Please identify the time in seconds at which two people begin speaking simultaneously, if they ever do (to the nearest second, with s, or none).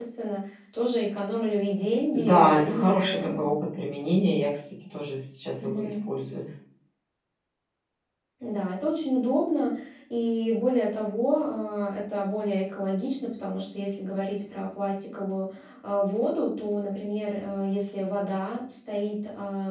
2 s